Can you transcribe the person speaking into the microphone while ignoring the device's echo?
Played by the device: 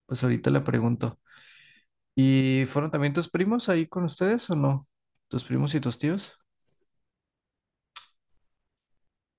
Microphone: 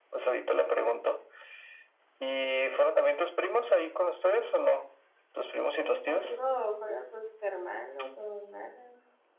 Sí, contigo fueron tus hermanos o hermanas.

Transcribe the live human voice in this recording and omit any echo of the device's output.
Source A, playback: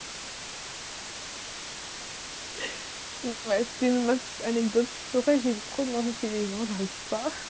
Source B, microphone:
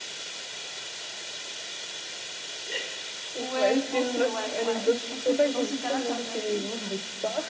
Ouais, je pense que, ouais, ouais. Je pense que dans ce cas-là, tu as bien fait.

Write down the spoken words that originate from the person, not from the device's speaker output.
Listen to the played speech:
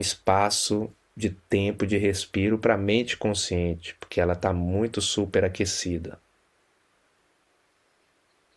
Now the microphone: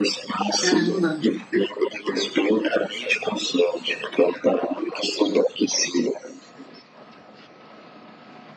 Caramba.

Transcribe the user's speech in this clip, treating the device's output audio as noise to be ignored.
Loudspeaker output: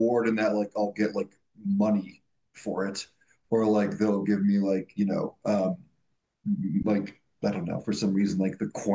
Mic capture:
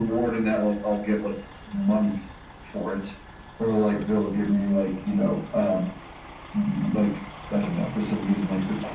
none

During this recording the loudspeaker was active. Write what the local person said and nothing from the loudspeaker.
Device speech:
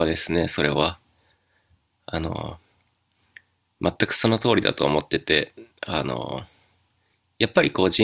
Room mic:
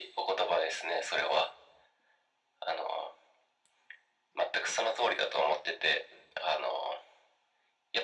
none

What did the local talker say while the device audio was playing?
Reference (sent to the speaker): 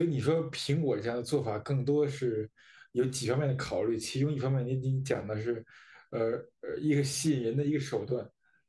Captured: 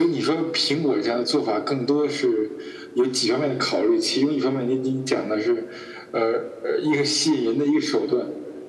none

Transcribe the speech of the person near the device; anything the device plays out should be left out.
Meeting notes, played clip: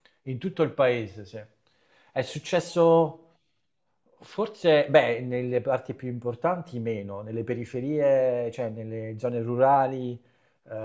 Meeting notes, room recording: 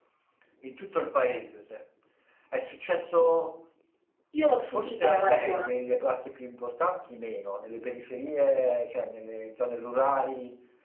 Io l'ho subita la maratona.

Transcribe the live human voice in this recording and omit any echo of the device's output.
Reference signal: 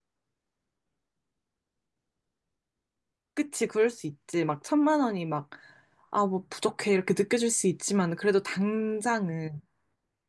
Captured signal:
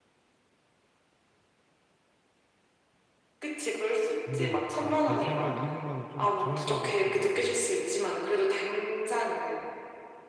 근데 아 다시 생각해 200만 원 좀 적은 것 같기도 하고.

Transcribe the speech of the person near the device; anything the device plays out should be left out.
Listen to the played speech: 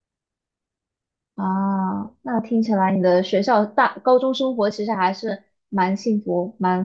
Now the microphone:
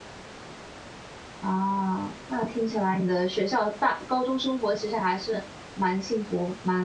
none

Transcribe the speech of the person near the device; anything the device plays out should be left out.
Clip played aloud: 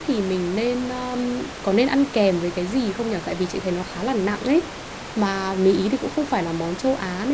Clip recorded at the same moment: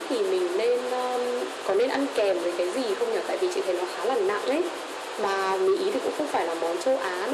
none

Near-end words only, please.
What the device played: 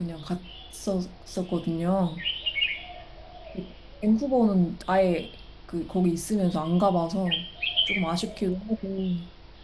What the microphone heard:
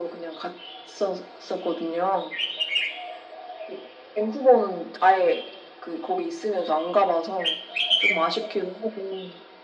none

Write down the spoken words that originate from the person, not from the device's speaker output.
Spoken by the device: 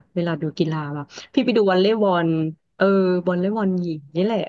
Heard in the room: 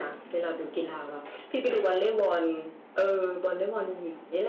none

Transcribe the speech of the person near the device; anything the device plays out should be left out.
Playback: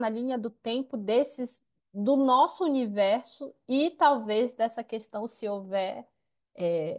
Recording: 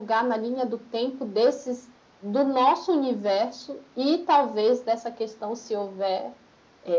none

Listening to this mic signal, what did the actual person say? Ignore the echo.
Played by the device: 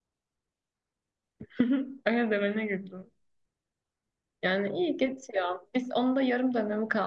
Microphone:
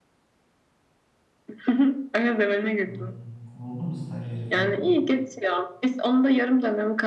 Hmm. O buldu mu stajyeri falan?

